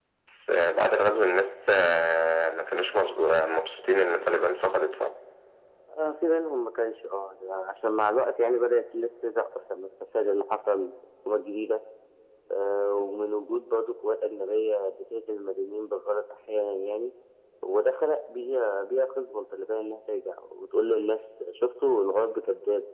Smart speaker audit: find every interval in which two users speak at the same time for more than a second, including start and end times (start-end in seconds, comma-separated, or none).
none